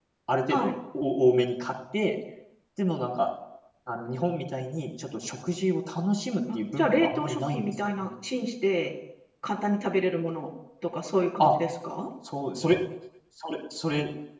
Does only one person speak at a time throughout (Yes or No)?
No